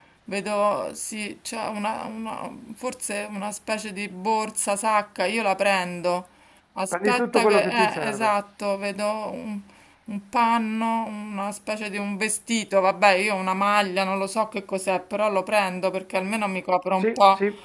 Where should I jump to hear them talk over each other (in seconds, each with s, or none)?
6.9 s